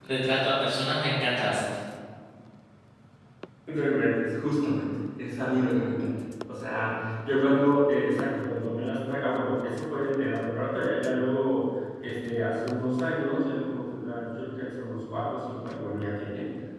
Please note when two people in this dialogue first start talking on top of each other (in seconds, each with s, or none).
none